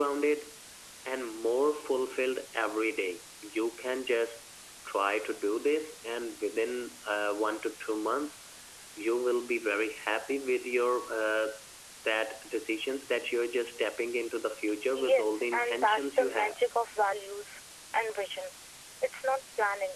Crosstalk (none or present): present